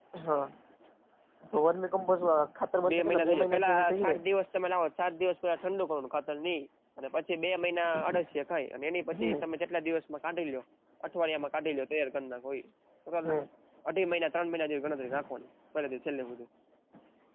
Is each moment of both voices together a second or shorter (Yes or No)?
No